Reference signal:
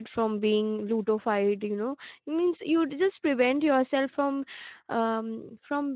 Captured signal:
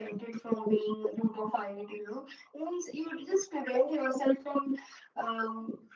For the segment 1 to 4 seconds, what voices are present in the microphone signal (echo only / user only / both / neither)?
echo only